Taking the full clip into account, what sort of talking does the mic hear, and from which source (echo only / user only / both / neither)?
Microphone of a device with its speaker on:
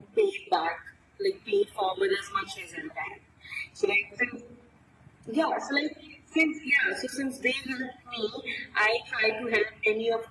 echo only